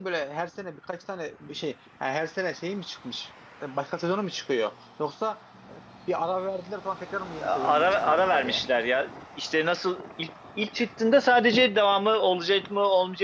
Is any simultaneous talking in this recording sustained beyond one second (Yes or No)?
Yes